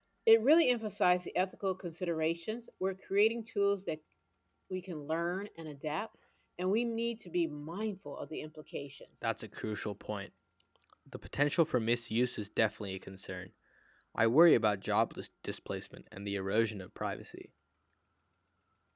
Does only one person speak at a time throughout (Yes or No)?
Yes